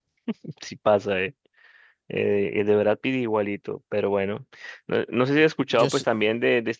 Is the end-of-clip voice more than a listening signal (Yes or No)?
No